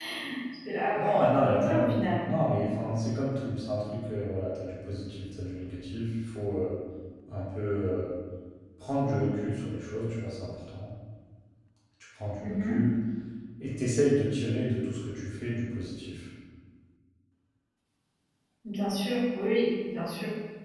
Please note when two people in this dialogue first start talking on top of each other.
0.9 s

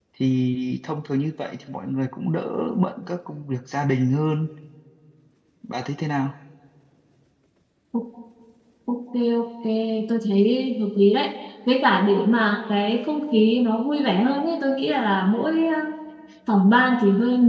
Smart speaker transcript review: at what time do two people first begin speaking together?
none

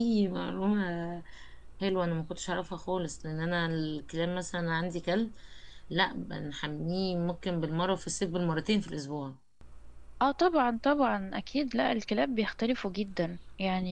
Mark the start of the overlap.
none

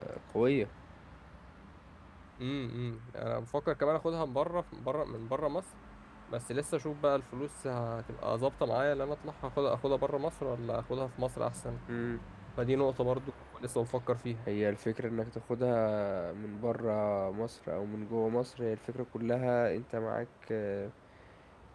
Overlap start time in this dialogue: none

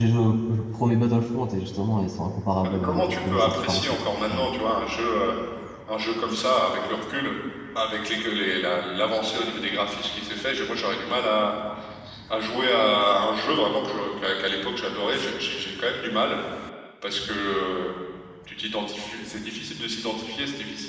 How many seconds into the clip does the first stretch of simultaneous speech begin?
2.6 s

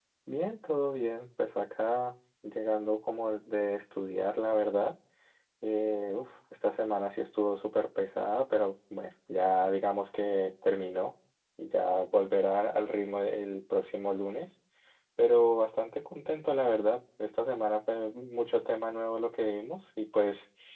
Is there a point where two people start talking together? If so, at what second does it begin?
none

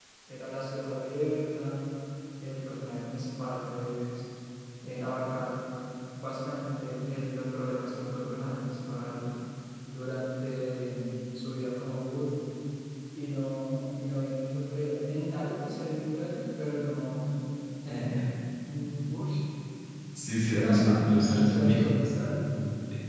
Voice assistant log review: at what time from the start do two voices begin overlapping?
20.4 s

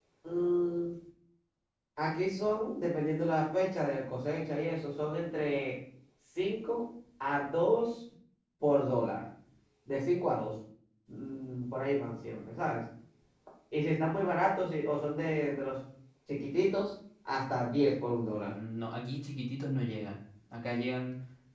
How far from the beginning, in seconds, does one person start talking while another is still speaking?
none

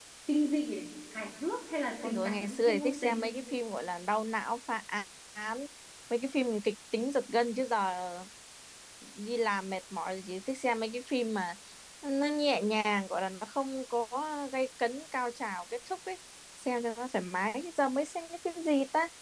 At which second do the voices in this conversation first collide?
2.0 s

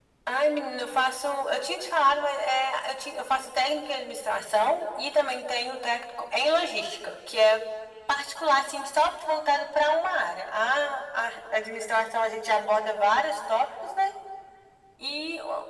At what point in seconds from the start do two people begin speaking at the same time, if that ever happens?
none

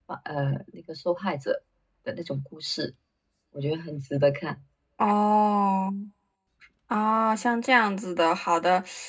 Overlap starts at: none

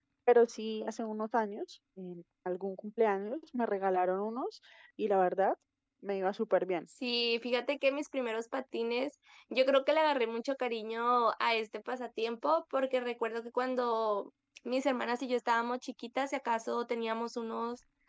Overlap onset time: none

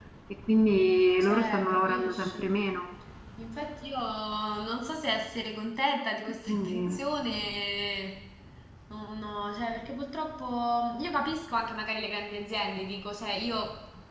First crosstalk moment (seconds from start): 1.2 s

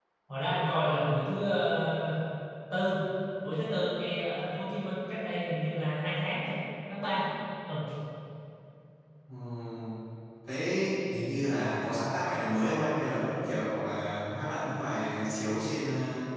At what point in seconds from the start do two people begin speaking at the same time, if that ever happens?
none

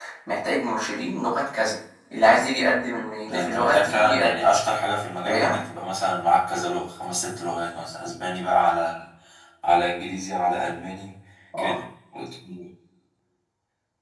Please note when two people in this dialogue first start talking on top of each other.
3.3 s

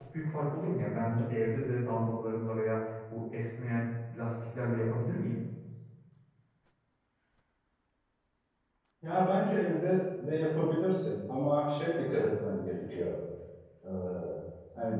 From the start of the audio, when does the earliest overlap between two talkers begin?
none

